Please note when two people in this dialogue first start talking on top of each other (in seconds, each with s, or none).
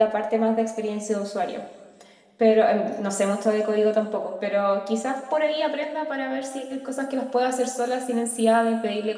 none